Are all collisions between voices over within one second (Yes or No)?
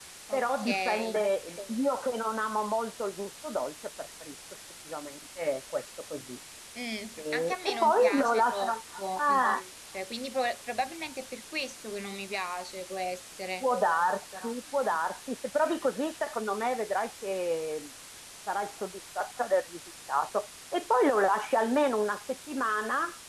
No